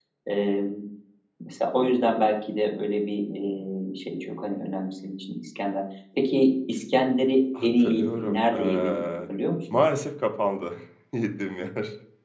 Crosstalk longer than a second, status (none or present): present